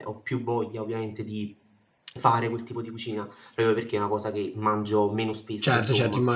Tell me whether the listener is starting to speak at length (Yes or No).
Yes